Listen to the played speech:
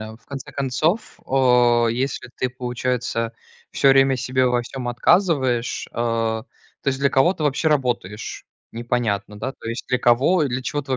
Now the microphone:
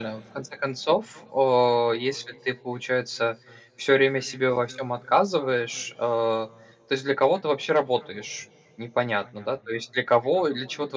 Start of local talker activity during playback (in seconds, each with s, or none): none